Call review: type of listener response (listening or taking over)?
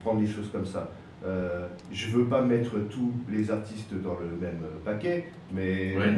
listening